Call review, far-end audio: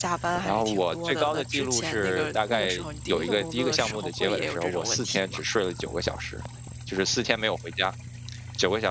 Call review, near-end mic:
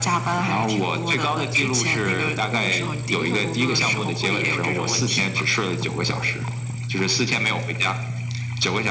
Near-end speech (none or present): none